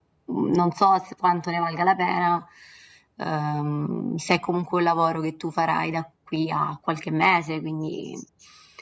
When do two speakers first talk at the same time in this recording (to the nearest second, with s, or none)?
none